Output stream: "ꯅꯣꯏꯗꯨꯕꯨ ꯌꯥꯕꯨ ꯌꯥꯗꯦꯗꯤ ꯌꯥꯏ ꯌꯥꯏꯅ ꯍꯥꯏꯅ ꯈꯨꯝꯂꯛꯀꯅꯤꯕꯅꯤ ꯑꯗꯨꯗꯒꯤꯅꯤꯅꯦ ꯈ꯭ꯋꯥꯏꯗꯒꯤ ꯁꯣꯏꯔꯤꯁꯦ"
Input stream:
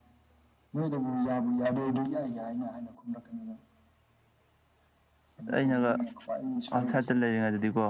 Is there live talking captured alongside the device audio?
Yes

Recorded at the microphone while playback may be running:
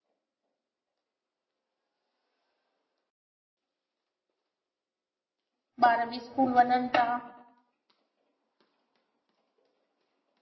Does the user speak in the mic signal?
Yes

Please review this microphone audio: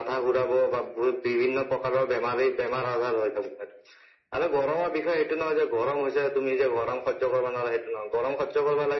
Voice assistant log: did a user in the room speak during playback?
No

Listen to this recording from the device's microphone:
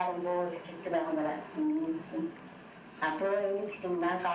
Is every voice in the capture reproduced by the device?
Yes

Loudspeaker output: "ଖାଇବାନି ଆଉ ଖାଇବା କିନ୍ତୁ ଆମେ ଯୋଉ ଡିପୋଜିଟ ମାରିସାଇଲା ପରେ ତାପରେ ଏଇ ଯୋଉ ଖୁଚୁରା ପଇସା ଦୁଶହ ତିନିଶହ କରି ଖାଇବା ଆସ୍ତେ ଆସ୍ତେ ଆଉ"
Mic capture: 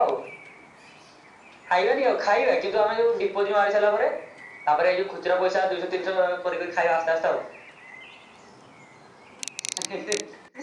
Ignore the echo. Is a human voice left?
No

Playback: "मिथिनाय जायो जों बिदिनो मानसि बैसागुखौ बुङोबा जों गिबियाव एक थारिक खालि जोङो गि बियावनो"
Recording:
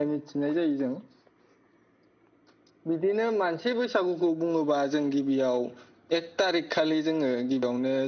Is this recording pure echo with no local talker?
Yes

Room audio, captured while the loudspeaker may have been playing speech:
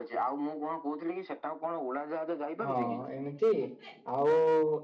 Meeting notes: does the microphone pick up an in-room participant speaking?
Yes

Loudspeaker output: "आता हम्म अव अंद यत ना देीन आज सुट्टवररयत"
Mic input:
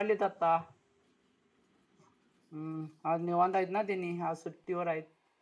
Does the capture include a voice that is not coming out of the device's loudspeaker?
No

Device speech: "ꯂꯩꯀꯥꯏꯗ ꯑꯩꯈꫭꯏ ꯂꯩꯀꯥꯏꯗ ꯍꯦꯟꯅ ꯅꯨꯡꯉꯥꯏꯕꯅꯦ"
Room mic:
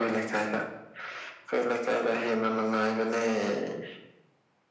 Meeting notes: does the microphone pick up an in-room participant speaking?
No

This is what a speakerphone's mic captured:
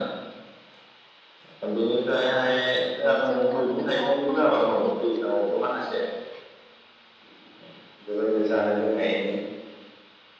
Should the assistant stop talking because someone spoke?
Yes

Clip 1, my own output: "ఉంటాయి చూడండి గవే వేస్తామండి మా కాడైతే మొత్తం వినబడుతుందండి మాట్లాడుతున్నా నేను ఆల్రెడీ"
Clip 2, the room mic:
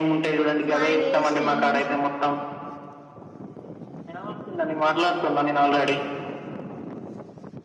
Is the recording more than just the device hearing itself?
Yes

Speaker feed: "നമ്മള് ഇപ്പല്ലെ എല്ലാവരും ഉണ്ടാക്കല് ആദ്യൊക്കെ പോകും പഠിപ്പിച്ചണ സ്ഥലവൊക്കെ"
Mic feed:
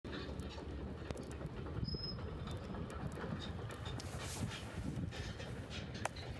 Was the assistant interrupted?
No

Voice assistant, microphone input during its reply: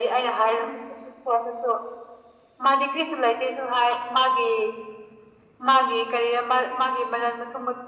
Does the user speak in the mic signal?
No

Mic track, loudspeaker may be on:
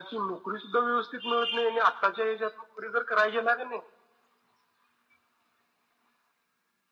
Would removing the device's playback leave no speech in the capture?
Yes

